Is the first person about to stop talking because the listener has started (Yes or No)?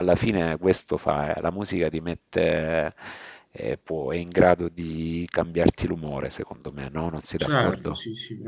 Yes